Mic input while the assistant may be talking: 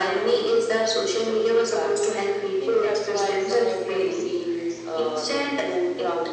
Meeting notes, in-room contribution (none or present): none